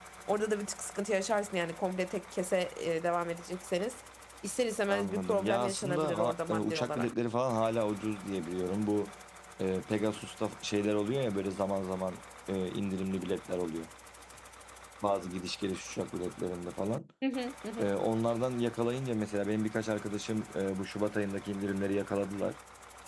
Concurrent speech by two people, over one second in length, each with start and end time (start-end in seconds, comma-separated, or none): 4.9-7.1